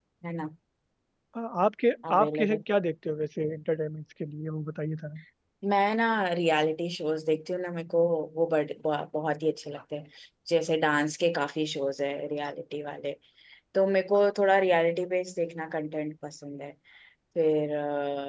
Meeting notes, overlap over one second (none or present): none